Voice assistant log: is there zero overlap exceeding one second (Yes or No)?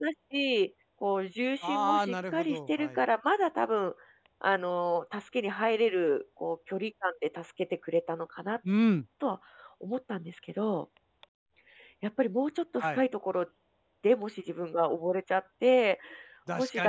No